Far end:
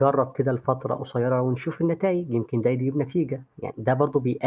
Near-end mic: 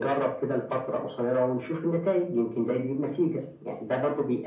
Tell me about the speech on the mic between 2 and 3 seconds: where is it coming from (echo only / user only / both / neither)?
echo only